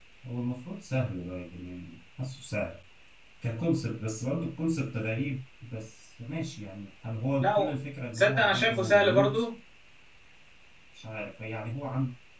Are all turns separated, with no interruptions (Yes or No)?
No